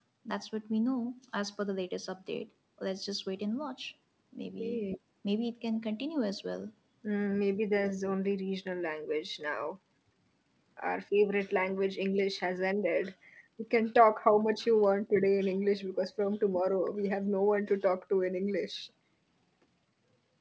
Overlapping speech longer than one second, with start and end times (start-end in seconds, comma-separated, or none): none